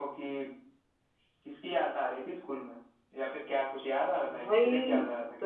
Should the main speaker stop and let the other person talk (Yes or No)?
Yes